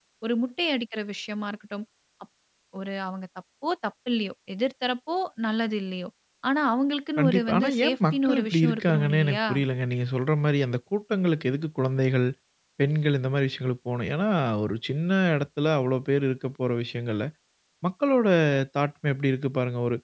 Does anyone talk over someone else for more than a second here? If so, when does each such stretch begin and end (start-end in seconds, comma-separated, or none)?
7.2-9.4